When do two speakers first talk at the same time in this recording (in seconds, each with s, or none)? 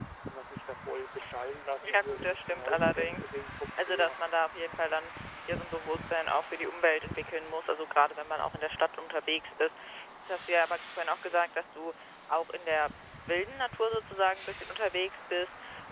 1.8 s